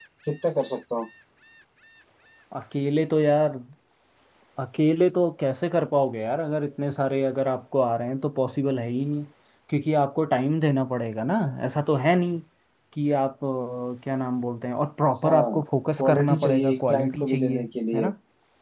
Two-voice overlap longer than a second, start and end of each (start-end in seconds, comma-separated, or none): 16.0-18.1